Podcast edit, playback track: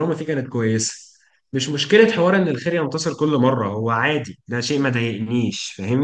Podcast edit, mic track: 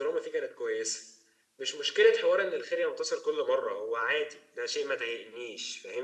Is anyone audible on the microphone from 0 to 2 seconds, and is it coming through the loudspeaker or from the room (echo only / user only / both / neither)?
echo only